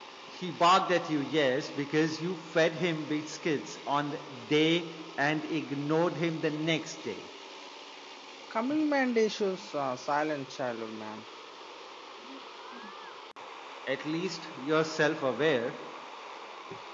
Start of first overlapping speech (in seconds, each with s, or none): none